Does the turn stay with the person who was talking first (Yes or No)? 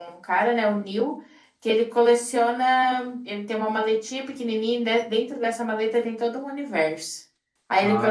Yes